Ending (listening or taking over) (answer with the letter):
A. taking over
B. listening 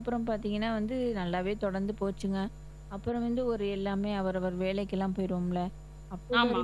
B